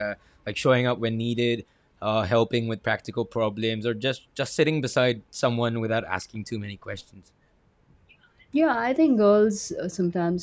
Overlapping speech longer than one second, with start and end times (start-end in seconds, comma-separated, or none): none